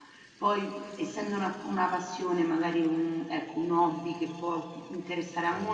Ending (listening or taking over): listening